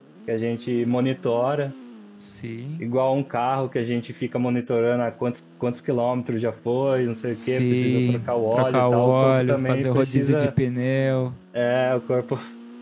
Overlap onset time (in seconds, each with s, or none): 7.3 s